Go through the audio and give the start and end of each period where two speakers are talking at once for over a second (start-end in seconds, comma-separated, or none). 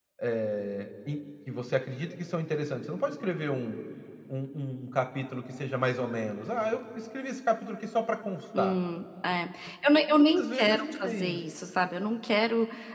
10.1-11.4